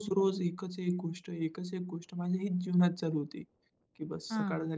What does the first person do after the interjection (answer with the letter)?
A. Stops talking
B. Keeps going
B